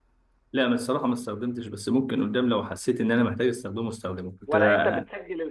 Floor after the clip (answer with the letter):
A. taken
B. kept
A